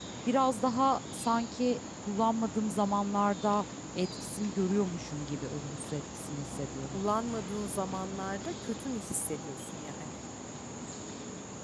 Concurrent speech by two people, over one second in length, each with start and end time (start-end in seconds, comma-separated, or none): none